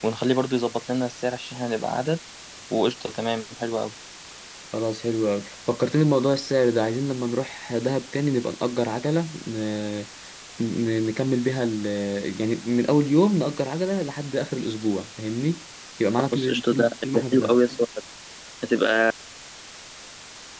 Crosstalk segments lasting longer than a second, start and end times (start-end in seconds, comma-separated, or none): 16.3-17.5